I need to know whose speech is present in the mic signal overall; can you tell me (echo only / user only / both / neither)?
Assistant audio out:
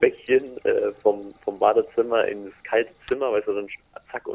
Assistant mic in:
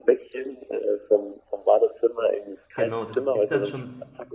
both